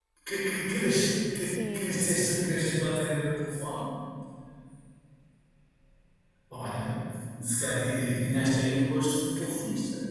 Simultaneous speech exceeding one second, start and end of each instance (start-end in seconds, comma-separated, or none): 1.4-3.0